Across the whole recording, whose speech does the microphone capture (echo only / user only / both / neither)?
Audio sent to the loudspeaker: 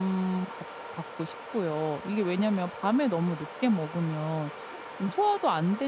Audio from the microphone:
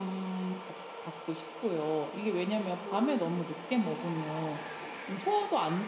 echo only